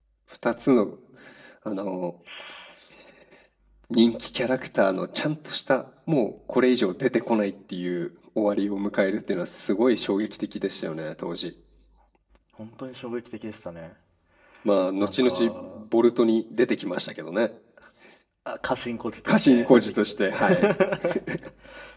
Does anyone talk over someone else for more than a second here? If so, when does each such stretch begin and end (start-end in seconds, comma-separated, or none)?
19.3-20.7